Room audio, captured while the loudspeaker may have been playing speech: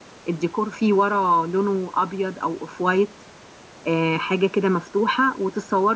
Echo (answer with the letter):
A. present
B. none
B